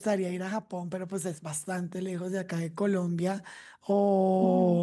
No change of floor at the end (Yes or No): Yes